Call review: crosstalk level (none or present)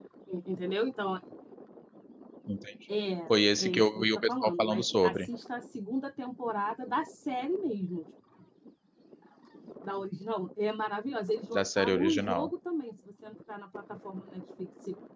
present